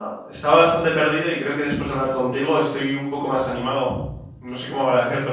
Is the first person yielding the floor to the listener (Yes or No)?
Yes